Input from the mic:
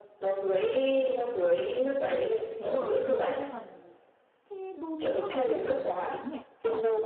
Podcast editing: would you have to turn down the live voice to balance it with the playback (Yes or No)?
No